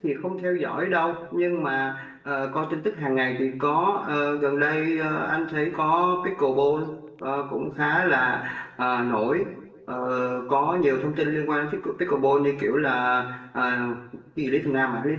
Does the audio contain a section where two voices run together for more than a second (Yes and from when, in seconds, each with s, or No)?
No